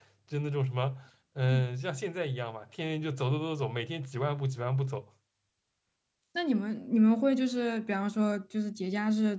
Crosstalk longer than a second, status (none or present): none